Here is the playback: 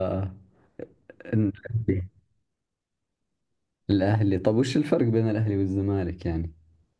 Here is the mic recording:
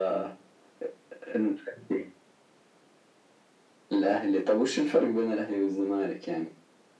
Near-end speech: none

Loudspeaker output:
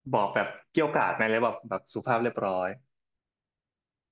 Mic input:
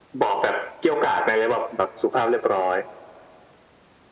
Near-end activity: none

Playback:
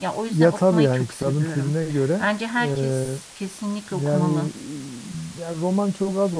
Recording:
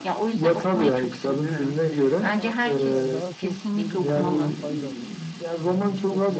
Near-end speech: present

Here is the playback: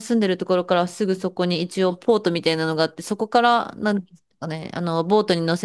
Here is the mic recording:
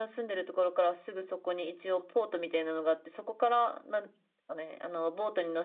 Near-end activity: none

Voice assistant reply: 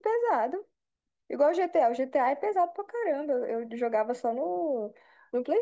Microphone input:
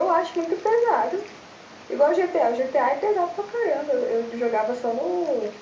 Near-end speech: none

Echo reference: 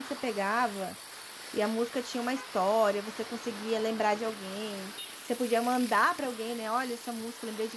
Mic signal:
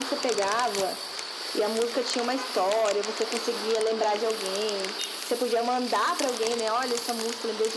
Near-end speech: none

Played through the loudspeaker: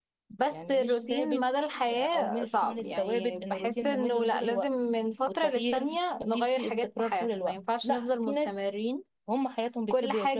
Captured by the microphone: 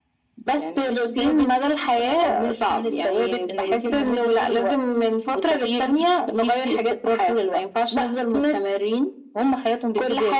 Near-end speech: none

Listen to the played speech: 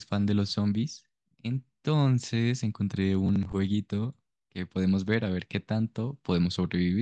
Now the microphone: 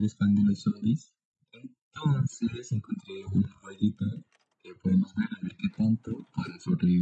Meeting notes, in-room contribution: none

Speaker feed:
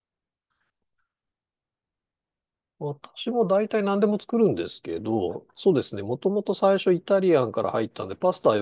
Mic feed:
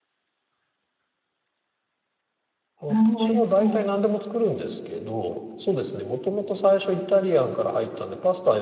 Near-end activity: present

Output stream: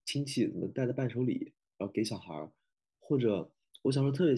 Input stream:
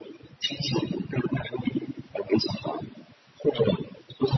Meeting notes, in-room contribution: none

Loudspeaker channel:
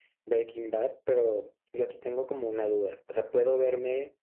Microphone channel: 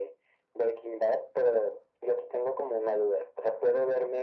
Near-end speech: none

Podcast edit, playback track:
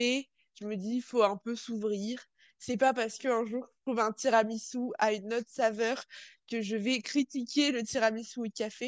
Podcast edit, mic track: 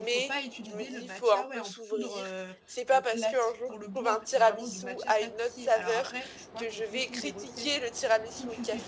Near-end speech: present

